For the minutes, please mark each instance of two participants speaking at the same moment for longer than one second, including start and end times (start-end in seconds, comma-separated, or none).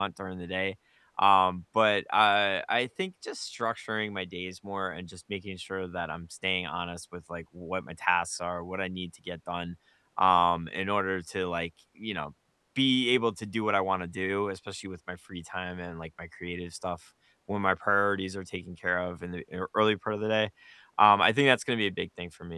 none